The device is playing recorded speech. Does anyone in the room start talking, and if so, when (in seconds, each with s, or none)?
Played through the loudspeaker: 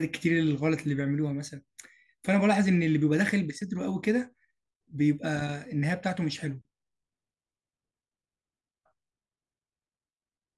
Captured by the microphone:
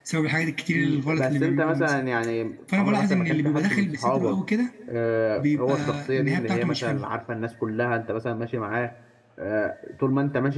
0.7 s